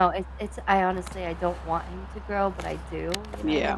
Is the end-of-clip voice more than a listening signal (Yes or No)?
Yes